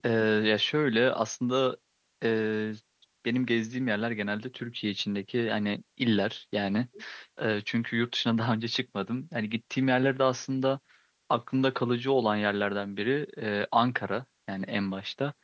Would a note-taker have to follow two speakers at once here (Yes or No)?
No